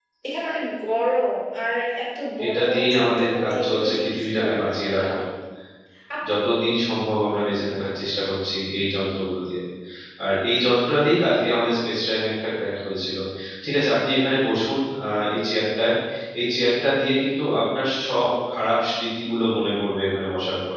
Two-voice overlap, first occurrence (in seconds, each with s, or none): 2.4 s